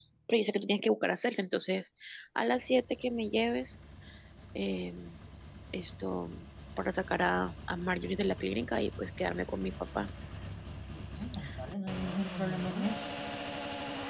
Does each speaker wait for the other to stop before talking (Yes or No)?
Yes